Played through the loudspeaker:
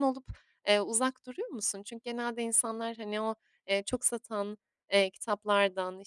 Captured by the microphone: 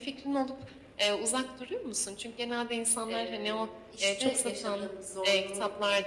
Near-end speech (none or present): present